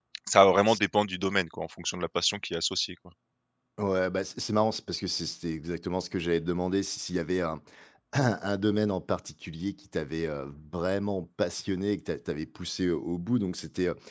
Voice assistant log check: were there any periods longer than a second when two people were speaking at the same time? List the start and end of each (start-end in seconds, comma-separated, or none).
none